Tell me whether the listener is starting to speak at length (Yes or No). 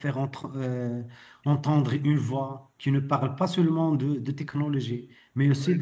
No